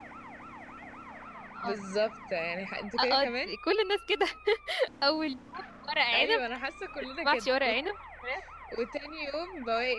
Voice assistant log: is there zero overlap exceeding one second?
Yes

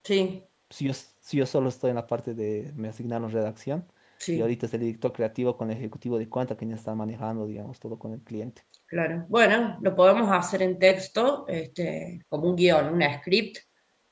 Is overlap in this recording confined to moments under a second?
Yes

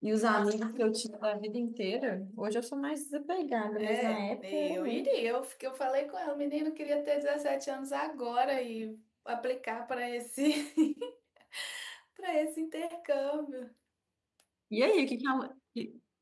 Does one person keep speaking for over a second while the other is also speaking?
Yes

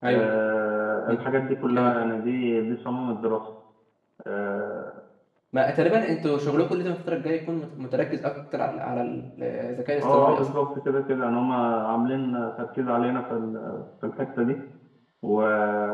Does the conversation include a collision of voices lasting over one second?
No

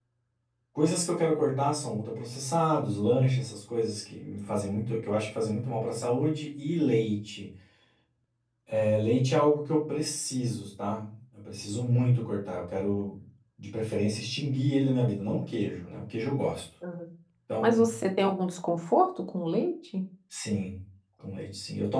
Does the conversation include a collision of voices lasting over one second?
No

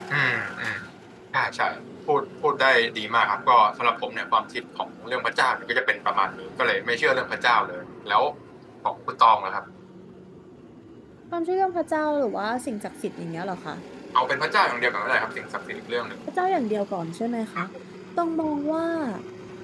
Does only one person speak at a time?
Yes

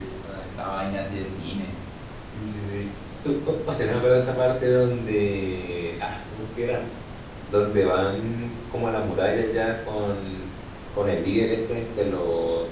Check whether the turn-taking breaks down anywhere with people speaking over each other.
No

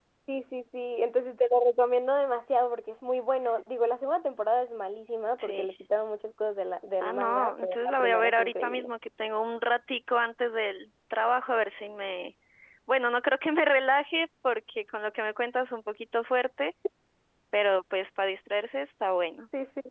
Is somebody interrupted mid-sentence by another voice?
Yes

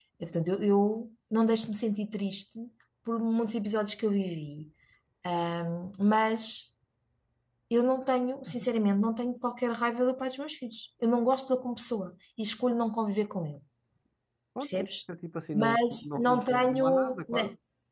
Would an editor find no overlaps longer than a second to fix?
No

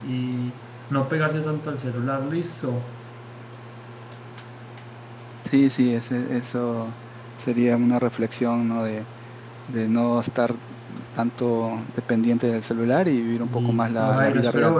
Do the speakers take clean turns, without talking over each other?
No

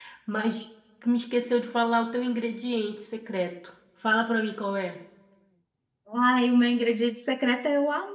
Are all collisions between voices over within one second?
Yes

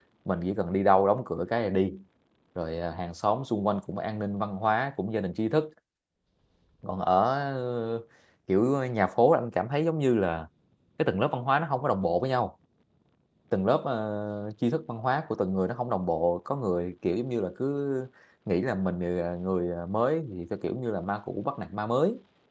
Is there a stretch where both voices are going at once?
No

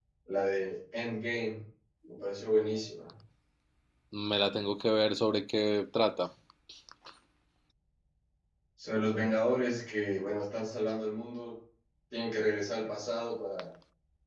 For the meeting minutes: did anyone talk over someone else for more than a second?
No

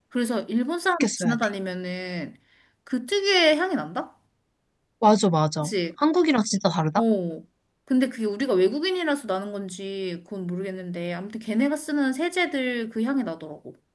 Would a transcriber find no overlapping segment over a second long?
Yes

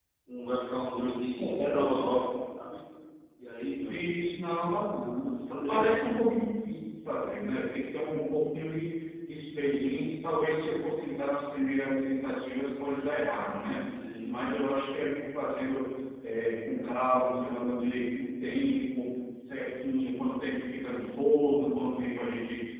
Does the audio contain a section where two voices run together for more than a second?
No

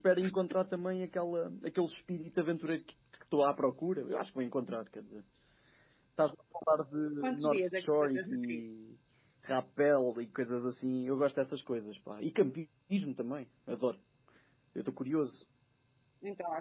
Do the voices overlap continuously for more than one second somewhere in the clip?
Yes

